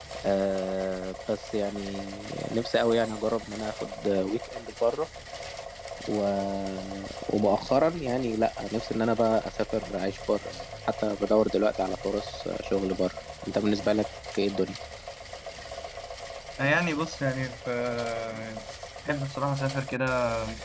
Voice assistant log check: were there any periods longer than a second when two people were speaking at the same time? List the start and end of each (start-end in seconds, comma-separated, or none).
none